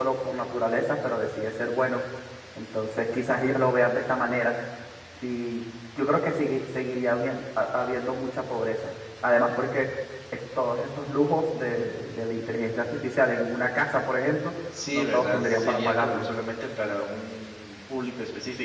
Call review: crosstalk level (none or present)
present